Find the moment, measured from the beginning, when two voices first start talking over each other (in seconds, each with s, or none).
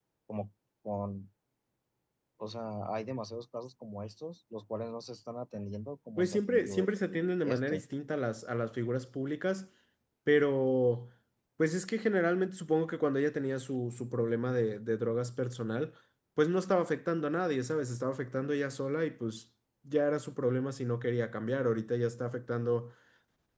6.2 s